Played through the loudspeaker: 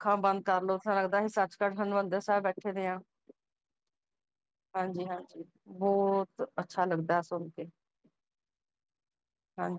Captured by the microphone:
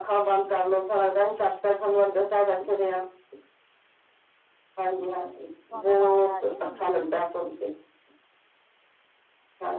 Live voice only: ਤੁਹਾਨੂੰ ਆਵਾਜ਼ ਆ ਰਹੀ ਹੈ ਮੇਰੀ

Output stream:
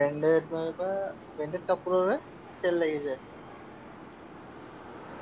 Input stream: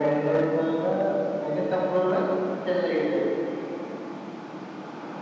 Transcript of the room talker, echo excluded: none

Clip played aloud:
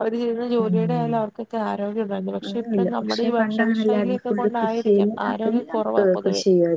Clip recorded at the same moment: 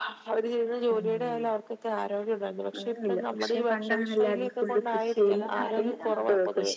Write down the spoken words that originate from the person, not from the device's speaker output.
എല്ലാം മരങ്ങ ആഹ്

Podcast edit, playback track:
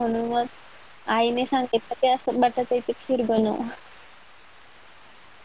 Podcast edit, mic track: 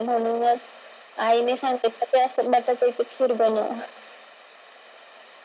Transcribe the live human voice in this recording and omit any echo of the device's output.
none

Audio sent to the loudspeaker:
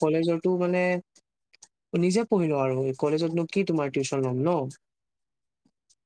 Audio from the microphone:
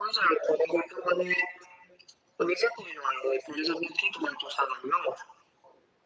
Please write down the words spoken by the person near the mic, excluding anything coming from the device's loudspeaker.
none

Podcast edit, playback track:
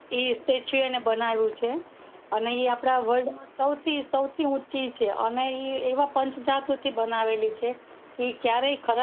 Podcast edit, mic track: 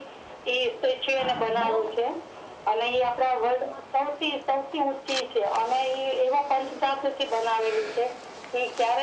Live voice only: હા બહુ

